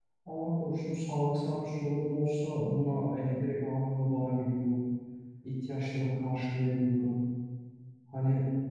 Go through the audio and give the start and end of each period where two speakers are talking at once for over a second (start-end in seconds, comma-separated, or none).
none